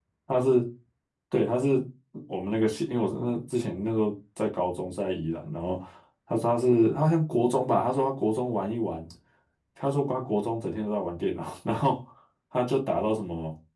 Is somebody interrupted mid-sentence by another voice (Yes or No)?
No